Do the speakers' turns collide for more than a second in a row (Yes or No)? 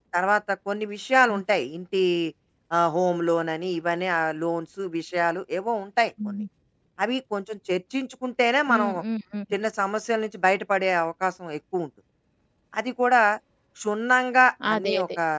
No